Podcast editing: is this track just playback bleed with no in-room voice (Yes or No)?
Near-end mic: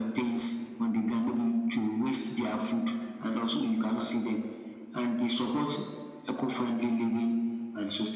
Yes